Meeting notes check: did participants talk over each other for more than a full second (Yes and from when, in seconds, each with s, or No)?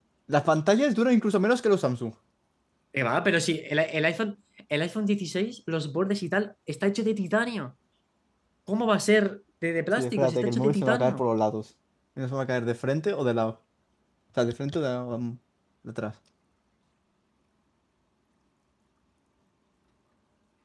Yes, from 10.0 s